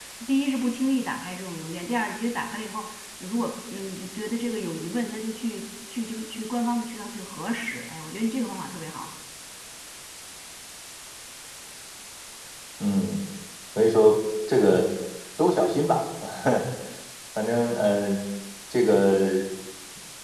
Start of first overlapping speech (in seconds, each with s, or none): none